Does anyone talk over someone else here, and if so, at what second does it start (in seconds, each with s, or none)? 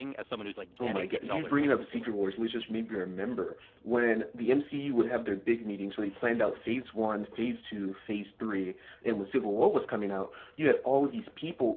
0.8 s